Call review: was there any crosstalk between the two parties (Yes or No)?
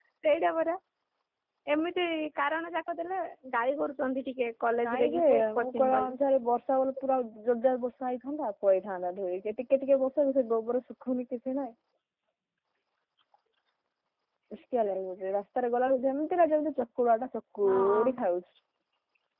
Yes